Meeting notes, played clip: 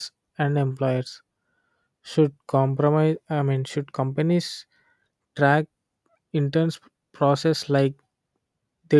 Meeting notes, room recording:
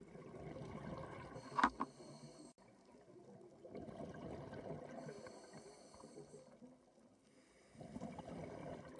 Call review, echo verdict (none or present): none